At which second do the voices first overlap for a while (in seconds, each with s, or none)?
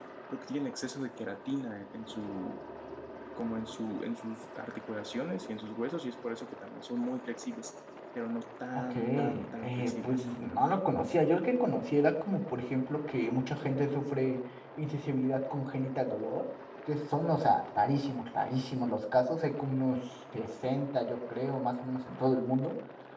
8.7 s